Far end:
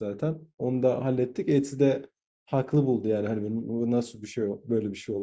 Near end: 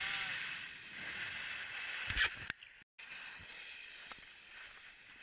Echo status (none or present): none